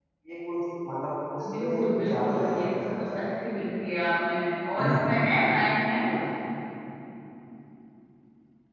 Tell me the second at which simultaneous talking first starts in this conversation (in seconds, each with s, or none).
1.4 s